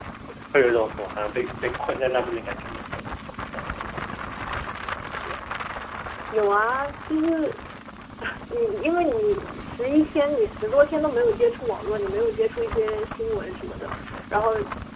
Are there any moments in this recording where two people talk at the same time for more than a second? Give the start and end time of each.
none

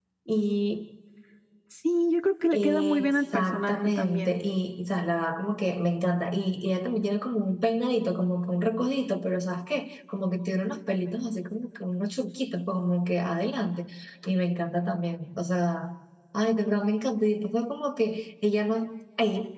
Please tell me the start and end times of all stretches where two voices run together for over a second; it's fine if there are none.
2.5-4.4

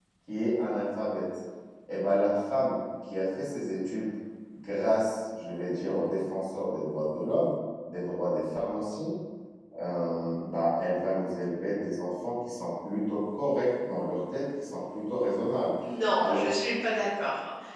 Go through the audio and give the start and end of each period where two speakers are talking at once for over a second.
none

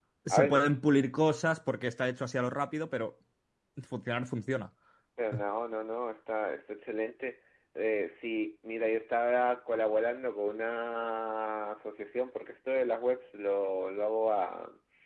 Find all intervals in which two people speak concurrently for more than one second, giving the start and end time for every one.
none

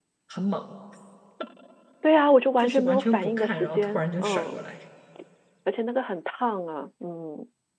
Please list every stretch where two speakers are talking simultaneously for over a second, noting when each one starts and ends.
2.6-4.6

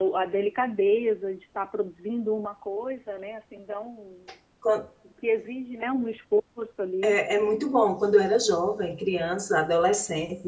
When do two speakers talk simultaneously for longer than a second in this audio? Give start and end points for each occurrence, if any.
none

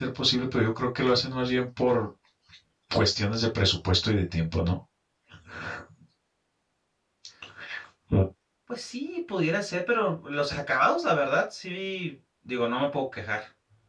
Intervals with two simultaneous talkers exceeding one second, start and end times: none

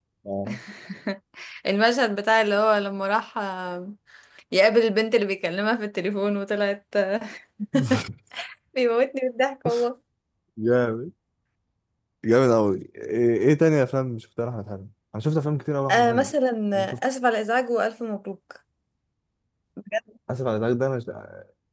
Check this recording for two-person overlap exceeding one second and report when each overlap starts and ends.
none

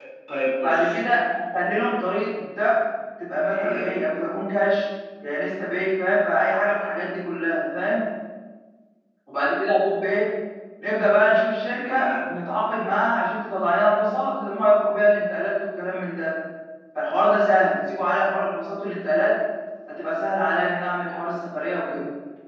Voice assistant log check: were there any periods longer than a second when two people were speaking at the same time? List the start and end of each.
none

